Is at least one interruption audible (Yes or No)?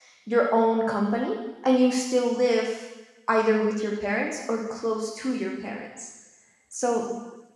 No